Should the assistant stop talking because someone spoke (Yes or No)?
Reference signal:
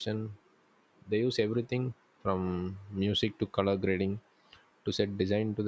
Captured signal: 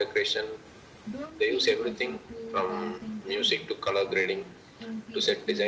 Yes